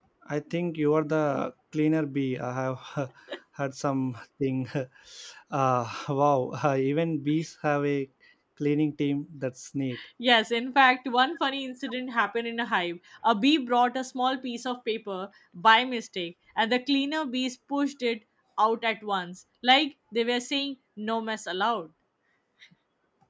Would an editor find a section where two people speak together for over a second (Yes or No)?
No